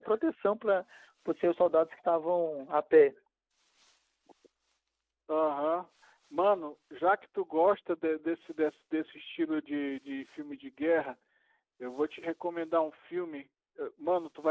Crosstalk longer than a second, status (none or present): none